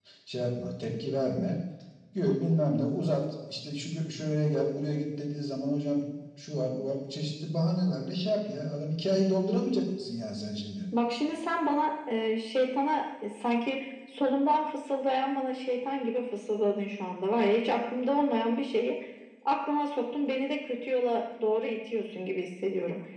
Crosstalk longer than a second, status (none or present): none